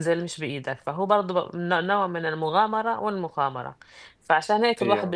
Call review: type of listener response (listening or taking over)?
listening